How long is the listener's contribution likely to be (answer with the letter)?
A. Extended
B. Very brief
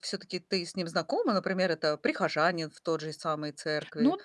A